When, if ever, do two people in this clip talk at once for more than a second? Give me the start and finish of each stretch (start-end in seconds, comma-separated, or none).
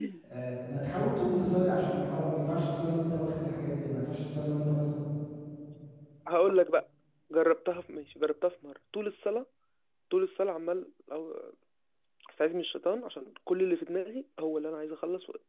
none